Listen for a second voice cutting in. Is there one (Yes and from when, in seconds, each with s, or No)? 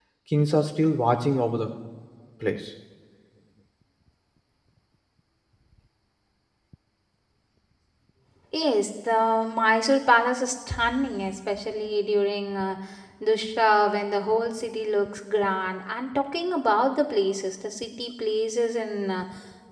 No